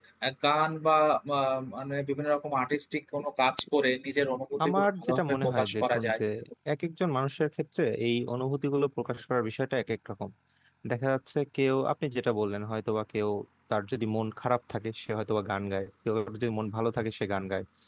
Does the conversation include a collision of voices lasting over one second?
Yes, from 4.6 s

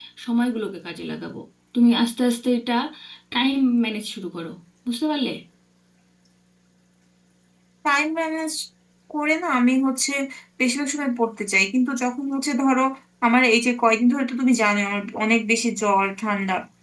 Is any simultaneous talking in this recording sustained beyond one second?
No

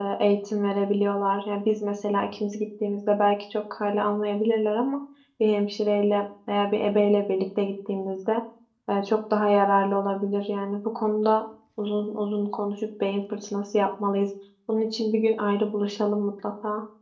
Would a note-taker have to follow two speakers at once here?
No

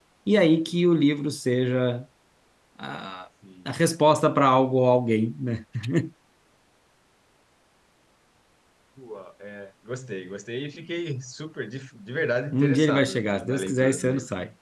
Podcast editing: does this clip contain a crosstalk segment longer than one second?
Yes, from 12.5 s

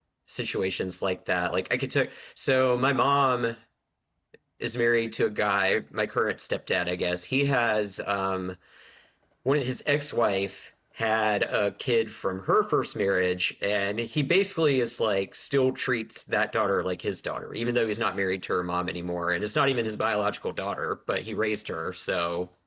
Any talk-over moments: No

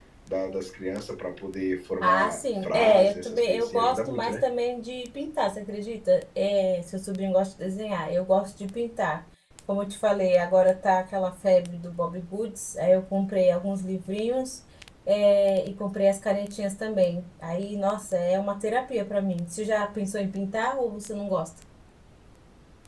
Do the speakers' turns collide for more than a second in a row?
Yes, from 2.0 s

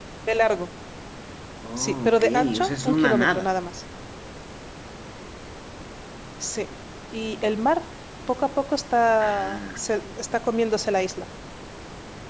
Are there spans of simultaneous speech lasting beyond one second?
Yes, from 1.8 s

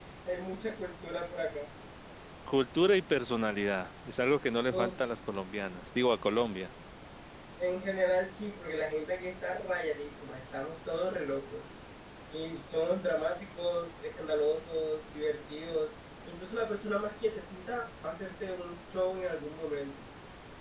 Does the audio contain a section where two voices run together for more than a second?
No

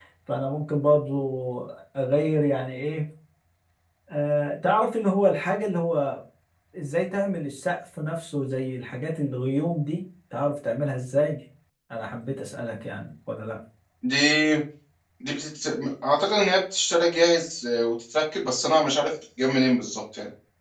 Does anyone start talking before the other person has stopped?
No

